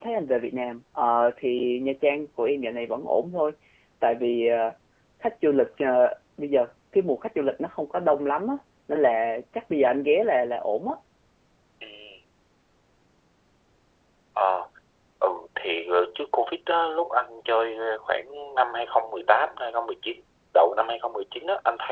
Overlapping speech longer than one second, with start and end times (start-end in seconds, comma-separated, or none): none